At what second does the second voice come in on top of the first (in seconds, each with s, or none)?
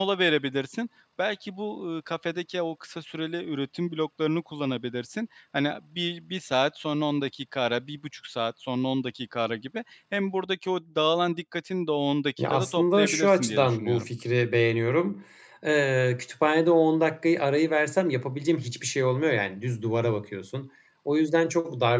12.4 s